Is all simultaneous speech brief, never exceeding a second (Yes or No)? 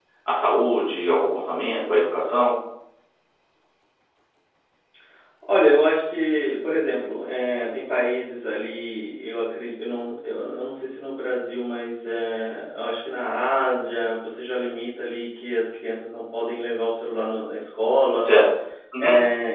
Yes